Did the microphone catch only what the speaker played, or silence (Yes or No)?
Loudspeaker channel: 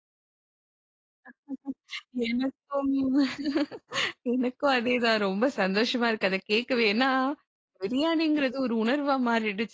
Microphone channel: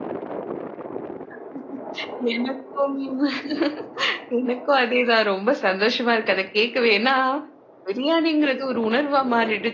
Yes